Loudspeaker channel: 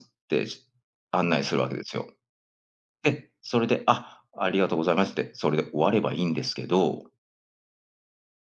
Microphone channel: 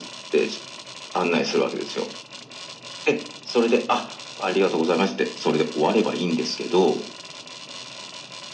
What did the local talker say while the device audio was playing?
none

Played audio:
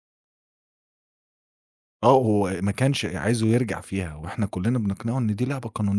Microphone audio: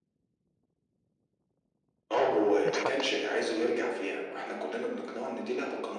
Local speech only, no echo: اتفضل.

